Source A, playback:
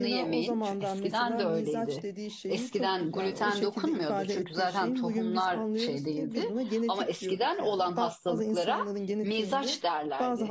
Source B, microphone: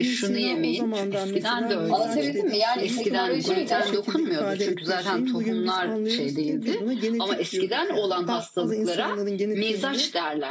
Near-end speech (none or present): present